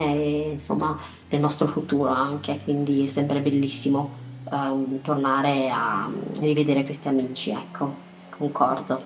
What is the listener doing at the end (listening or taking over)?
taking over